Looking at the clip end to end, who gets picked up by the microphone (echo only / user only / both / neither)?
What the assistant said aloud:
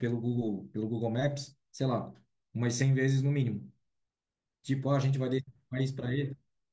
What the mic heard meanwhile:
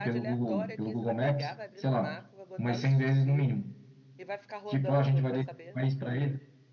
both